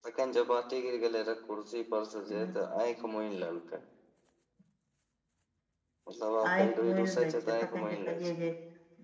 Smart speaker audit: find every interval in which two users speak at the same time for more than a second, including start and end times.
6.5-8.3

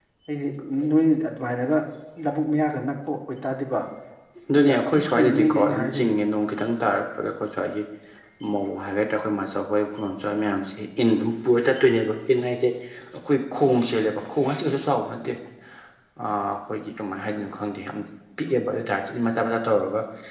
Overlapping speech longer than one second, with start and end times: 4.6-6.1

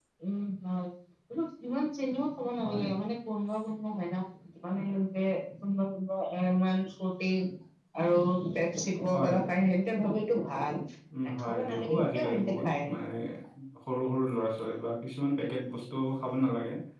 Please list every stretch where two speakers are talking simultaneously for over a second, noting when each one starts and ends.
11.4-12.9

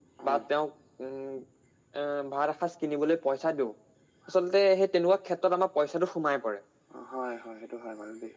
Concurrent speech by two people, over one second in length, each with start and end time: none

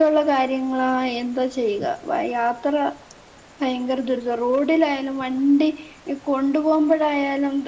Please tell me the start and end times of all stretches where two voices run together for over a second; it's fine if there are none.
none

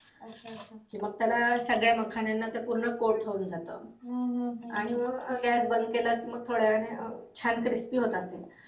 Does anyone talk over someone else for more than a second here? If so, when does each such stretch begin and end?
none

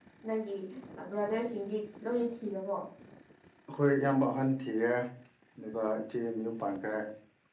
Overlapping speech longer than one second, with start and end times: none

